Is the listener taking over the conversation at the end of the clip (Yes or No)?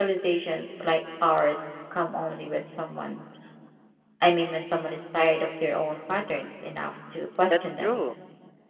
Yes